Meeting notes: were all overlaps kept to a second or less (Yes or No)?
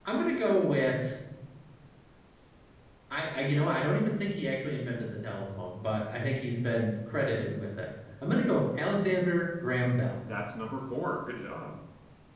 Yes